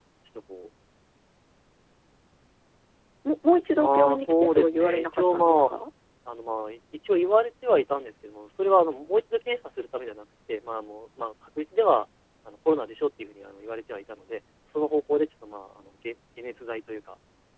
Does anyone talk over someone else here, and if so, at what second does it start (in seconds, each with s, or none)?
3.8 s